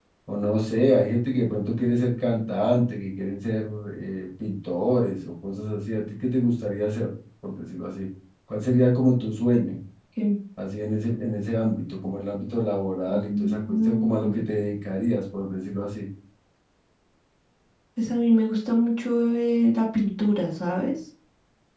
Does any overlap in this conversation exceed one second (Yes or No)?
Yes